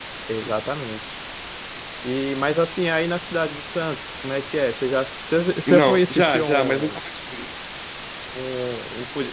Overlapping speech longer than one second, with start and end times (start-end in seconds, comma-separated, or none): 5.7-7.0